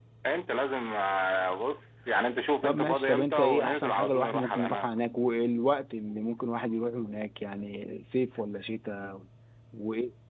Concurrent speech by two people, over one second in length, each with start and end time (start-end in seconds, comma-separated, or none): 2.6-4.9